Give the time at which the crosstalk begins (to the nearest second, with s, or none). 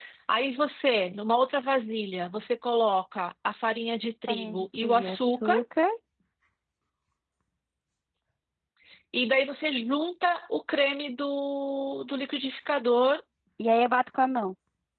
4 s